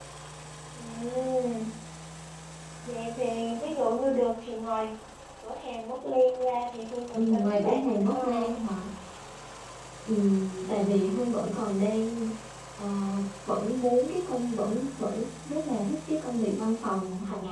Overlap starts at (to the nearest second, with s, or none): 7 s